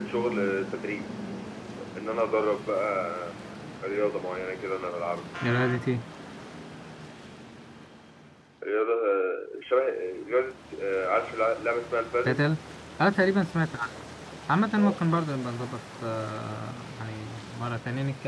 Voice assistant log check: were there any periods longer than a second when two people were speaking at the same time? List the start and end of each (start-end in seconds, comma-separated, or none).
none